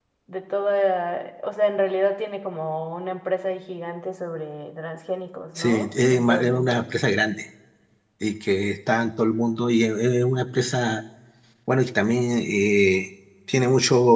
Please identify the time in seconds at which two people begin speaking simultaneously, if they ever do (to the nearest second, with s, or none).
6 s